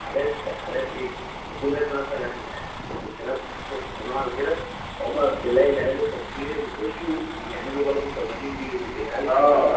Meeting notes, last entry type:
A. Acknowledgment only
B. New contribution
B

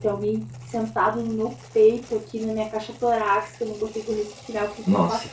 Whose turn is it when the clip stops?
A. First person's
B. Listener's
A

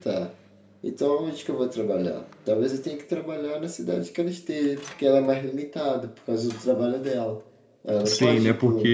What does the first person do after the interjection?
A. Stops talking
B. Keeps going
A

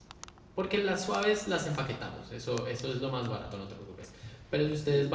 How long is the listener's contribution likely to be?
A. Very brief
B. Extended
A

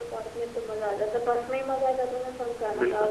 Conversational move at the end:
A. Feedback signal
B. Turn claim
B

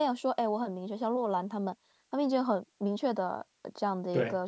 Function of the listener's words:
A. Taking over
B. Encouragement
B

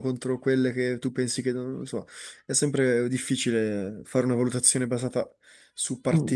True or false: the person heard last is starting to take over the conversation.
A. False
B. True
B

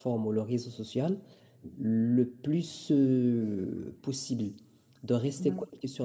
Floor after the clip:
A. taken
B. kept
B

